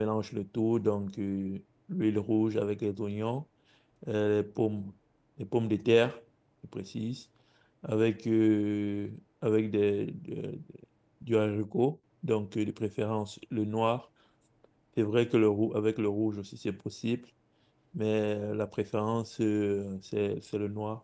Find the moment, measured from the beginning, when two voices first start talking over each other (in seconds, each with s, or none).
none